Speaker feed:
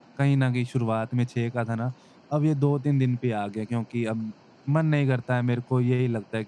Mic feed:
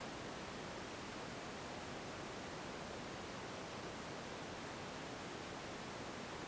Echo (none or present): none